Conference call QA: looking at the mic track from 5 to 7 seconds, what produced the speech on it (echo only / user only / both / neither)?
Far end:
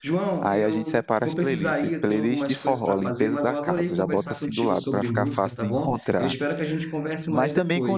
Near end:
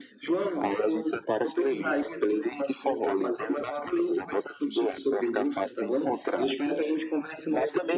echo only